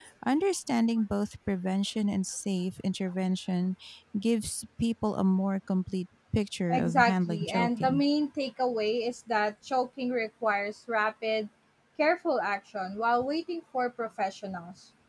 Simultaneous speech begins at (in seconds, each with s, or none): 6.7 s